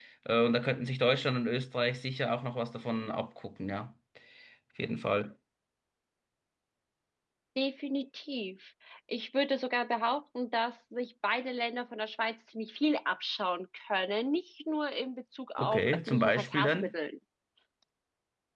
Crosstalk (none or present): present